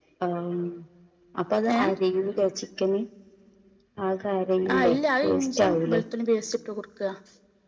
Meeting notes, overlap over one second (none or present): present